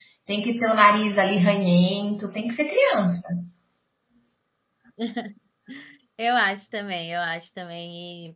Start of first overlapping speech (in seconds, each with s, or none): none